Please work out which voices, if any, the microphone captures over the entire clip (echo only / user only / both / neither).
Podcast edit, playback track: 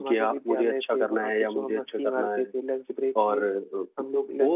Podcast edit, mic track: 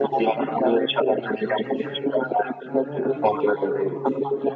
both